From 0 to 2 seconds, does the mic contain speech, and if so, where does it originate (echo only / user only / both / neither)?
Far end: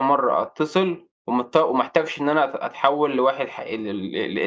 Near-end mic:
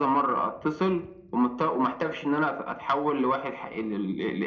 echo only